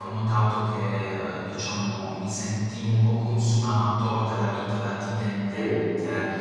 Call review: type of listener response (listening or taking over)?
listening